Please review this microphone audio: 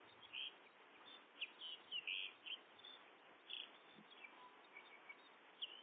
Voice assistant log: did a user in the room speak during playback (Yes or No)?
No